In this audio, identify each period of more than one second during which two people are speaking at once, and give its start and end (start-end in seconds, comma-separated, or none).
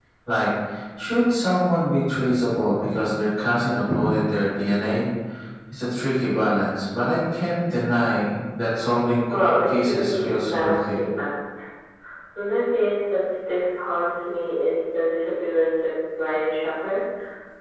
9.3-11.0